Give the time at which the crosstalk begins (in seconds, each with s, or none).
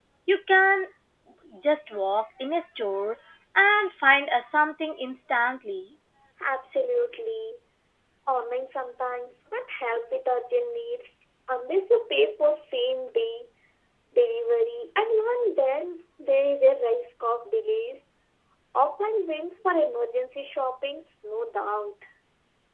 none